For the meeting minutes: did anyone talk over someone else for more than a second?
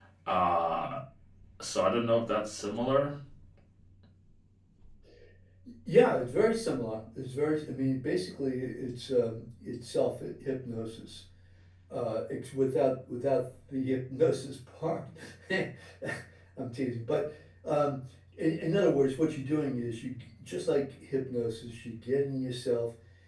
No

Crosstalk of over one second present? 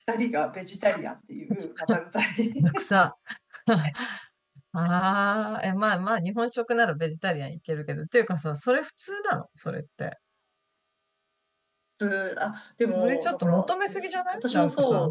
Yes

